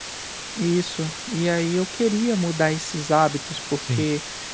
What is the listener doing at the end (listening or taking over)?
listening